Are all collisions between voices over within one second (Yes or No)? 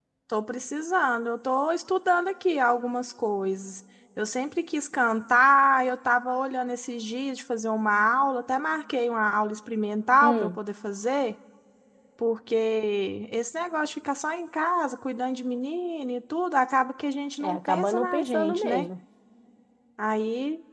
No